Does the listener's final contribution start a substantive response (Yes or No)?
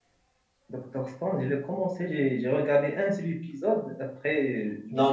Yes